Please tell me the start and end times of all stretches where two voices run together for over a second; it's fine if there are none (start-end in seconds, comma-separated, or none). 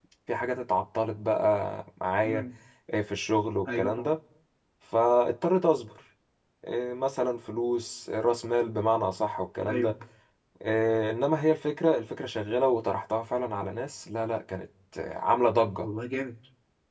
none